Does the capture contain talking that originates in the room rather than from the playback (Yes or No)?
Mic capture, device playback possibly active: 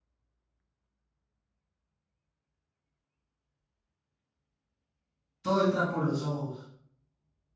Yes